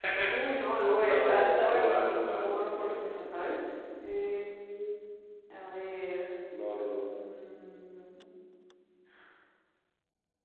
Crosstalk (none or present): present